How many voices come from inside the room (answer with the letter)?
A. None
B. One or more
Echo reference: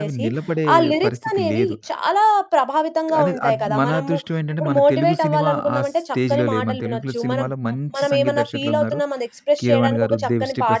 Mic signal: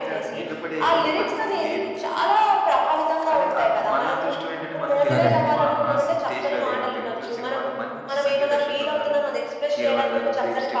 B